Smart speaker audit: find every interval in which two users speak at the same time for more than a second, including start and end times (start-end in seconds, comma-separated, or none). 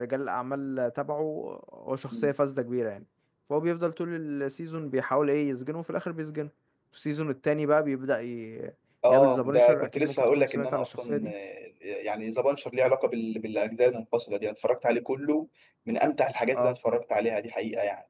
9.1-11.3